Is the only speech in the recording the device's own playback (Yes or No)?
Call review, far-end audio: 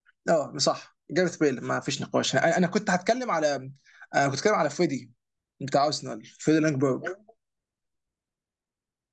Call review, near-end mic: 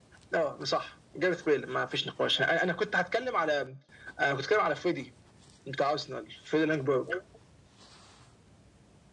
Yes